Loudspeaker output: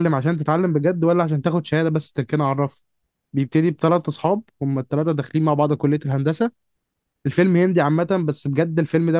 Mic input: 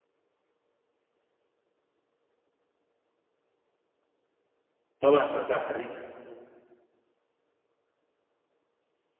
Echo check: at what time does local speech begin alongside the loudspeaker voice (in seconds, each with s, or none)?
5.0 s